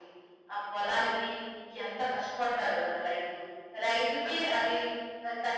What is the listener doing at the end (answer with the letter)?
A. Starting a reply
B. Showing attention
B